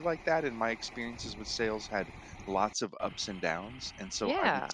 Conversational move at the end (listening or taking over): listening